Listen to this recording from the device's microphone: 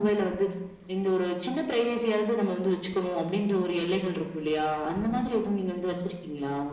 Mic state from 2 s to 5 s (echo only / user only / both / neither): echo only